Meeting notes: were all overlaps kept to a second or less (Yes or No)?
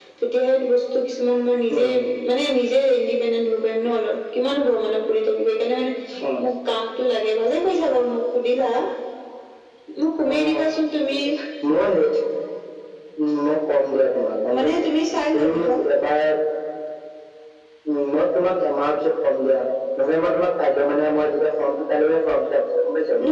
Yes